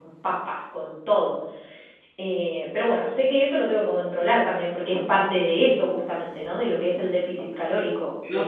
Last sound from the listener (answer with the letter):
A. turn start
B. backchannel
A